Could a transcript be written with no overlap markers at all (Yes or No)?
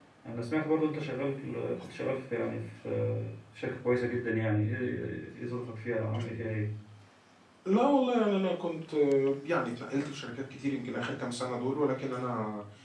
Yes